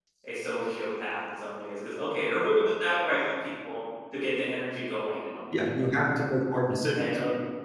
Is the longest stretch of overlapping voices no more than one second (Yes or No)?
Yes